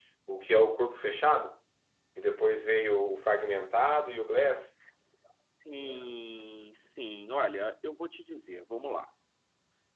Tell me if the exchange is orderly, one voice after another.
Yes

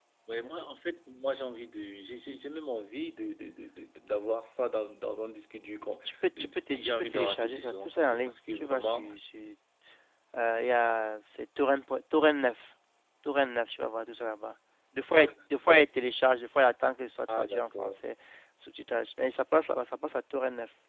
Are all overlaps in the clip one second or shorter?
No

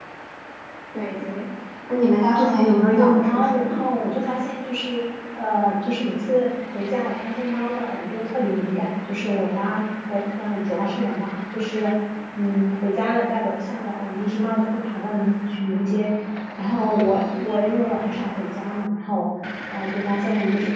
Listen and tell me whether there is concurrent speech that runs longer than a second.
Yes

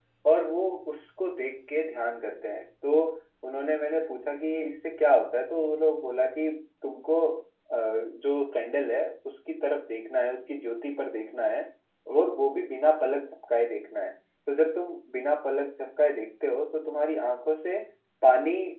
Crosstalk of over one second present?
No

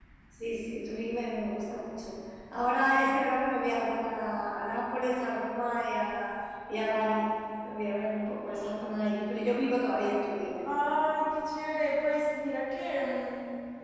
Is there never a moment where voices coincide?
Yes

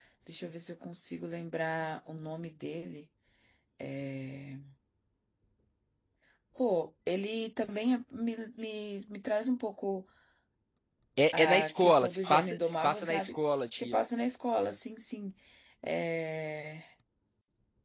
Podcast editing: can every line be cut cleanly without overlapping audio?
No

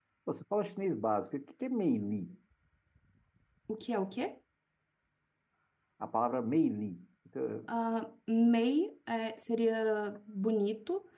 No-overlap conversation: Yes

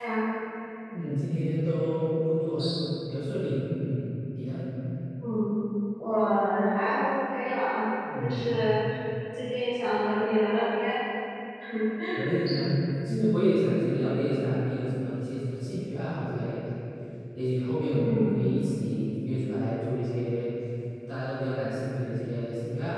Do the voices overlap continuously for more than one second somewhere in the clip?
No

